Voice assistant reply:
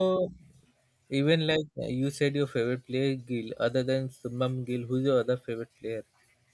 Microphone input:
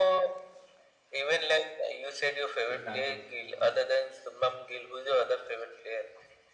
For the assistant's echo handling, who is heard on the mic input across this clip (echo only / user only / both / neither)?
both